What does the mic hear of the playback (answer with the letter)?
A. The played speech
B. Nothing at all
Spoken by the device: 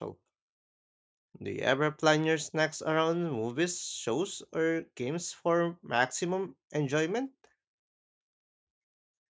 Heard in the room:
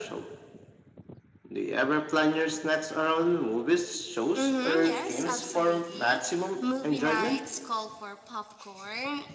A